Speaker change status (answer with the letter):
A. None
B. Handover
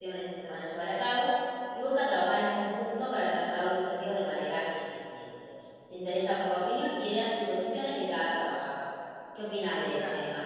B